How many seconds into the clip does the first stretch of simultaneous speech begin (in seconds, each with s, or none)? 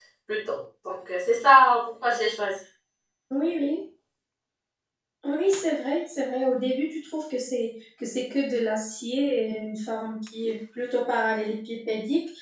none